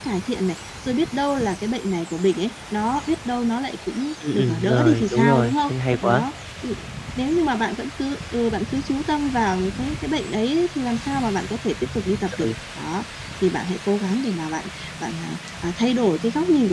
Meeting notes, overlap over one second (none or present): present